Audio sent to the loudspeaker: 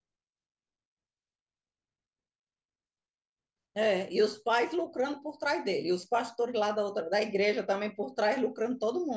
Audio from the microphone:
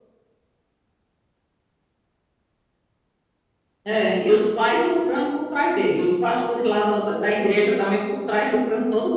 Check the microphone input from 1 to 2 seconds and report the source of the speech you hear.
neither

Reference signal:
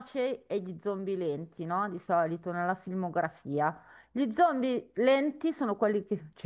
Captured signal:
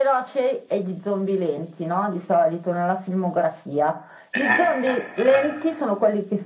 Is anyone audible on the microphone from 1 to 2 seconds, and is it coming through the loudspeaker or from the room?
echo only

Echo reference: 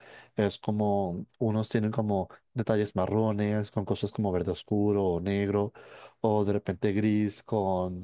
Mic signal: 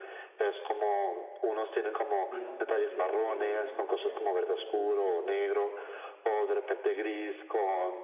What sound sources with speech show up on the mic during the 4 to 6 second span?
both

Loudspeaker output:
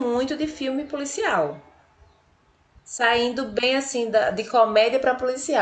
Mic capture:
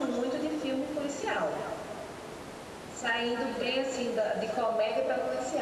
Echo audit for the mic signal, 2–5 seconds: echo only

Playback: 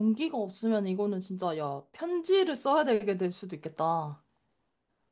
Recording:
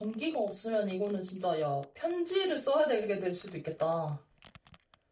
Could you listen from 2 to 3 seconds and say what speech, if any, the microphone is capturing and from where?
echo only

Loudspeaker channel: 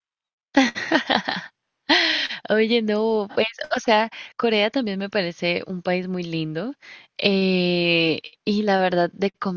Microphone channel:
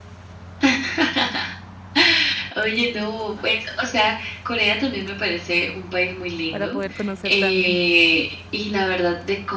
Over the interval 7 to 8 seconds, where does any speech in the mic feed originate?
both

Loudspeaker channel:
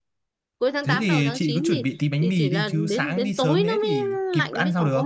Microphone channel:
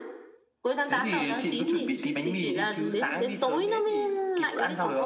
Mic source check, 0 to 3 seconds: echo only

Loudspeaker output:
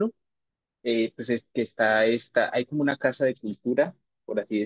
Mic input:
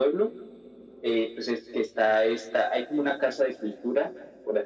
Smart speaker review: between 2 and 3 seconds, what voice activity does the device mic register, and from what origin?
echo only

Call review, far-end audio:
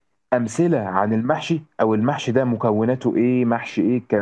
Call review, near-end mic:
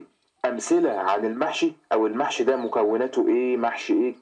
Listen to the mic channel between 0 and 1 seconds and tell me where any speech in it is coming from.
echo only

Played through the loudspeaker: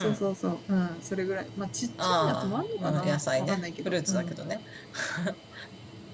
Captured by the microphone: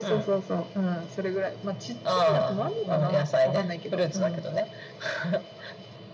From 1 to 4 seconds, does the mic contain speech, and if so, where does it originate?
echo only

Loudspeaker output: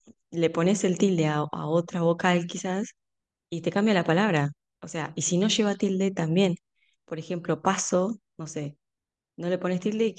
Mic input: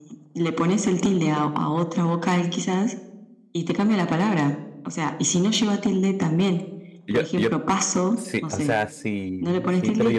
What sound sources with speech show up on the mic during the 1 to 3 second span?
echo only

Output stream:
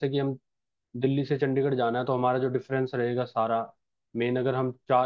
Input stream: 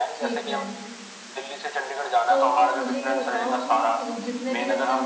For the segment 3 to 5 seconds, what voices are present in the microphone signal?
both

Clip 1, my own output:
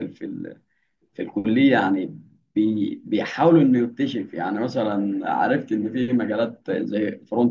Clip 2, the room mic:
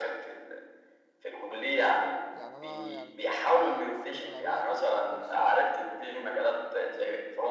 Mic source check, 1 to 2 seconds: echo only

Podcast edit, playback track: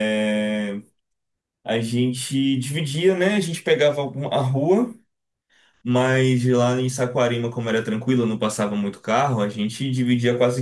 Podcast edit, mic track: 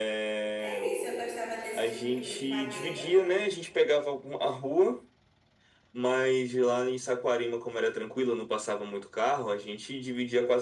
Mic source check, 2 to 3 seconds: both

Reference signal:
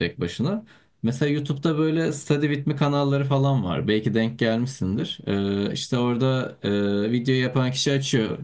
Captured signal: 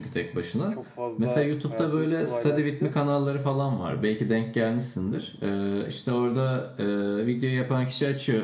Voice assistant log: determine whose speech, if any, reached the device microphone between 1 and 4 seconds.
both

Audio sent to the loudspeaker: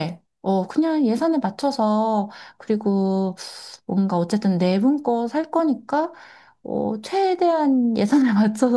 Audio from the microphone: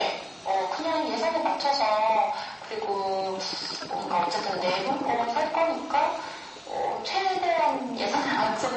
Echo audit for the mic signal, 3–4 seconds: echo only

